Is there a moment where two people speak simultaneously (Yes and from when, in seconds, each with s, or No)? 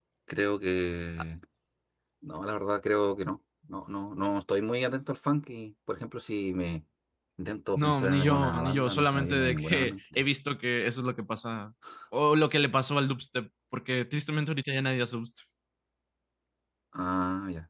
Yes, from 7.8 s